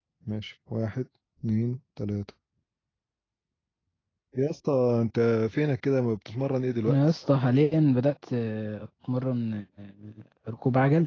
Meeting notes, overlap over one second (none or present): none